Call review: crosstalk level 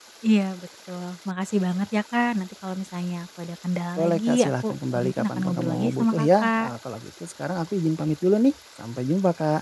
present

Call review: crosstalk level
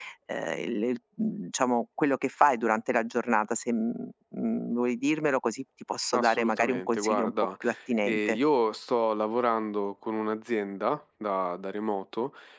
present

